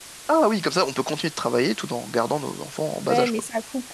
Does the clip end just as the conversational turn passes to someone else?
Yes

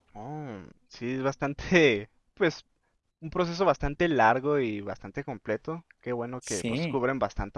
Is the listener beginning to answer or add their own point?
No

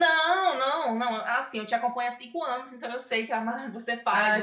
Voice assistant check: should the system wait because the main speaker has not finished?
No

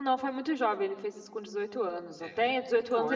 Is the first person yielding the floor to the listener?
No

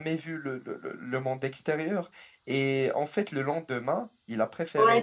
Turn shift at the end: Yes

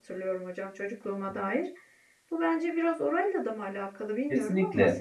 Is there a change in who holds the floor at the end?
Yes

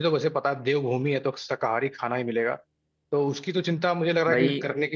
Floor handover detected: No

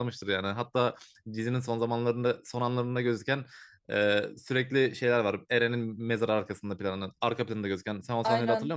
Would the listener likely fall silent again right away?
No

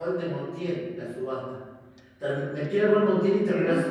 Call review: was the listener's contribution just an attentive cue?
Yes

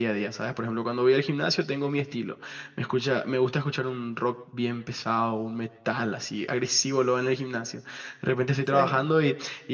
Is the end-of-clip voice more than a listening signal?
No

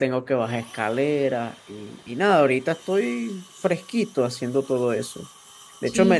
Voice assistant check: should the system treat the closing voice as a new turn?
No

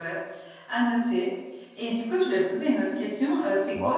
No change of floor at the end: Yes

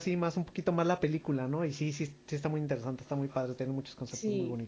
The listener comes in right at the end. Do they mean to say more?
Yes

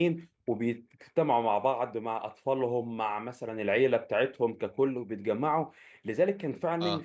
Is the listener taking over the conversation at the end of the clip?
No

